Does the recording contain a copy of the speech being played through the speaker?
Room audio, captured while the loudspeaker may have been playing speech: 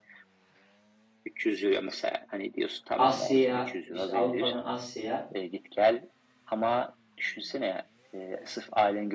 Yes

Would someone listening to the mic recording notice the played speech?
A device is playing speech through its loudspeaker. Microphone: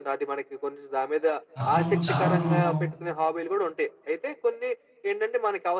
Yes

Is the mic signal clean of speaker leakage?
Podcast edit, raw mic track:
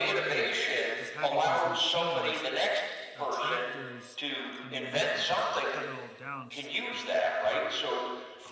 No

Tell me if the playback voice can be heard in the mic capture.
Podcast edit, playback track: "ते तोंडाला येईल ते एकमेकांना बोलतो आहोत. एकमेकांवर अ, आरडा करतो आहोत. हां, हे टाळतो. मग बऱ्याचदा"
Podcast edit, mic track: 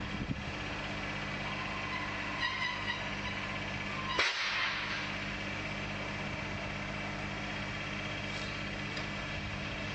No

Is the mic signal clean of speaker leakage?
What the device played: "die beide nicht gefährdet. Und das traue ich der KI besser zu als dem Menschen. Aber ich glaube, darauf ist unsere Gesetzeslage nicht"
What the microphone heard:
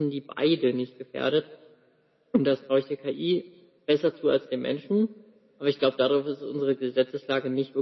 No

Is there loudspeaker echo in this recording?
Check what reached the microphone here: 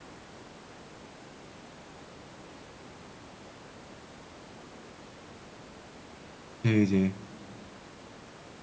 No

